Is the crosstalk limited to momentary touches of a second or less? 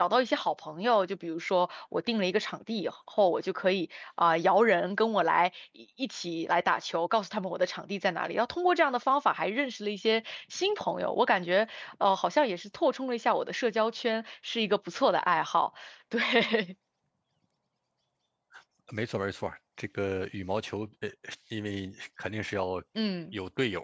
Yes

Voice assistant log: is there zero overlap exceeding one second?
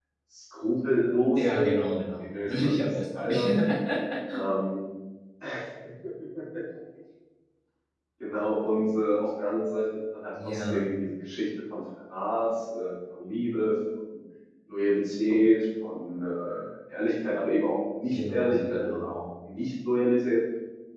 No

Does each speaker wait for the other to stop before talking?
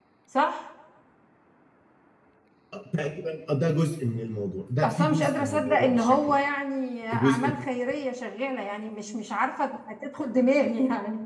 No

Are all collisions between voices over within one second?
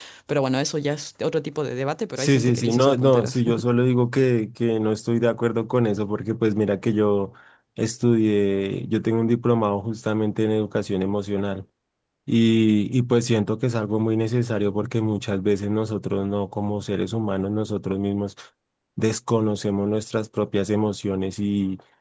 No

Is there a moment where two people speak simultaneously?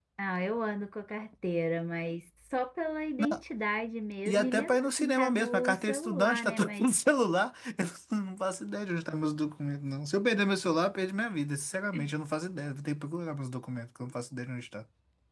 Yes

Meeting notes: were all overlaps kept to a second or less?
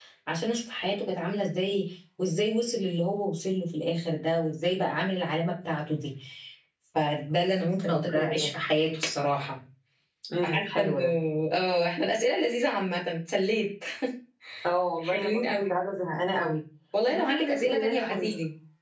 No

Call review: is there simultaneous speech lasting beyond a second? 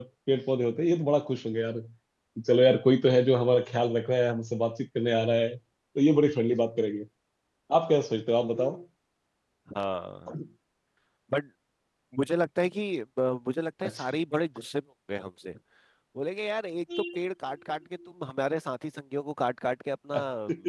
No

